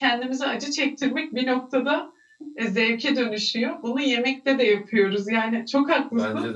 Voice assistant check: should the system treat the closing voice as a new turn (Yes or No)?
No